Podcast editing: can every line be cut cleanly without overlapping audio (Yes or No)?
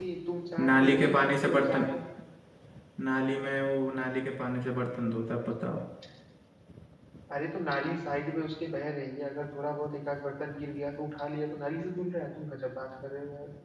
No